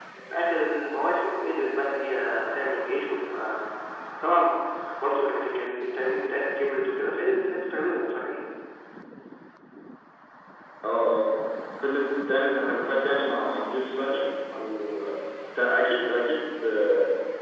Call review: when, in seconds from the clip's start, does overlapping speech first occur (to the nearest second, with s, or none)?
none